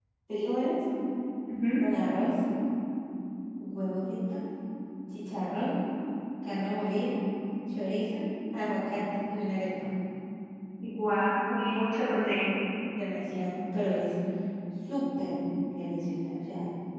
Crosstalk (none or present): none